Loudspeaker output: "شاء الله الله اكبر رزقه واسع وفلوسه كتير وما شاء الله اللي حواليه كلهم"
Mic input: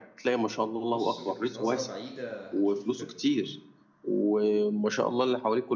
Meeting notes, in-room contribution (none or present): present